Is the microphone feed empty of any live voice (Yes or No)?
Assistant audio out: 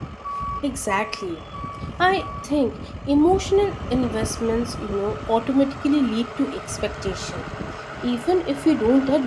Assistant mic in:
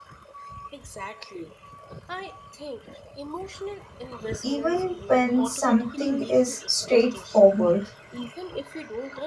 No